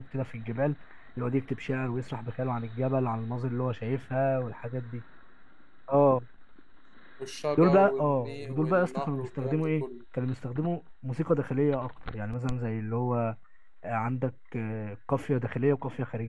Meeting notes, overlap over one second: present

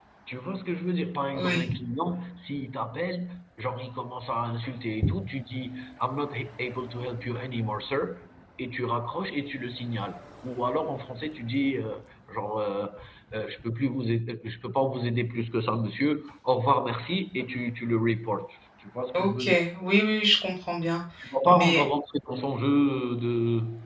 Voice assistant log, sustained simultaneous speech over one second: none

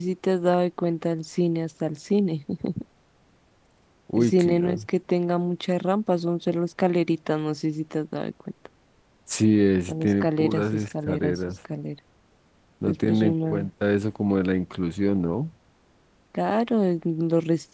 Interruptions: present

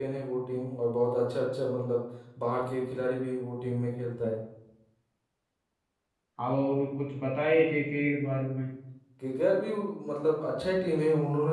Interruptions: none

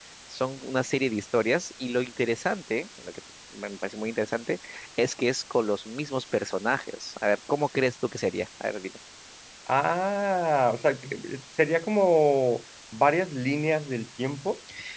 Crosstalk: none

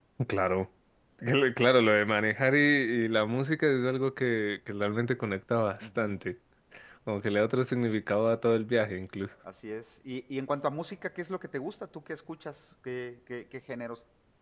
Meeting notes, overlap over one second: none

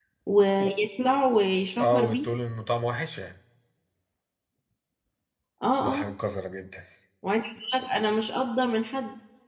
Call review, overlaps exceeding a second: none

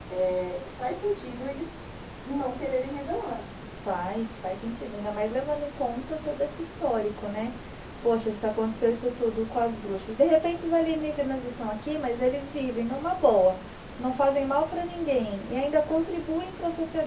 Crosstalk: none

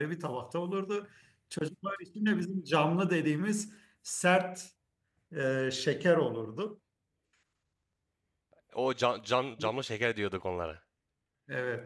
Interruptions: none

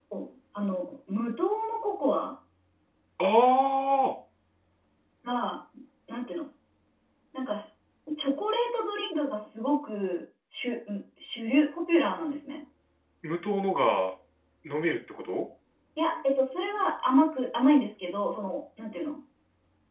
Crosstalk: none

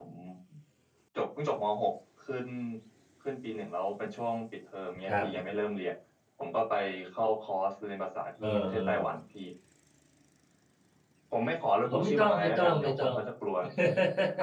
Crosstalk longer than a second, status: present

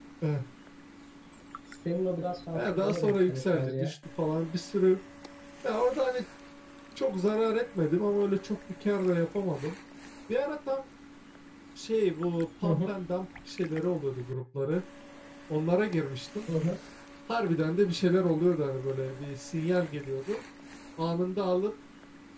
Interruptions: present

